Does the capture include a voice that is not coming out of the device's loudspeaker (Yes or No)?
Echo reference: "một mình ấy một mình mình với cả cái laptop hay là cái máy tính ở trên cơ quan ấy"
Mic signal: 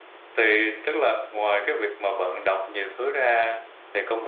Yes